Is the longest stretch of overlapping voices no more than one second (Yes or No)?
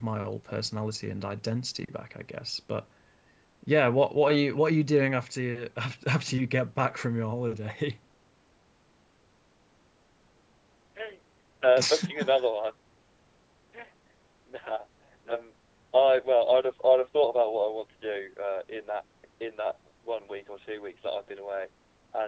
Yes